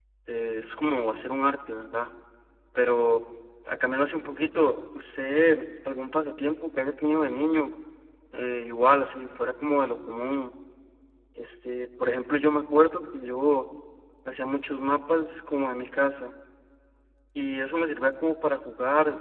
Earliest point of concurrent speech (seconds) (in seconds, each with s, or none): none